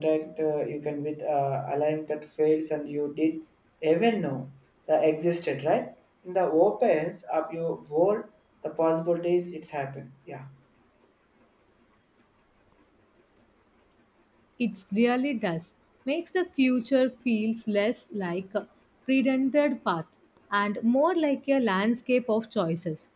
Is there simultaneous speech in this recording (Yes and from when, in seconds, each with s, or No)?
No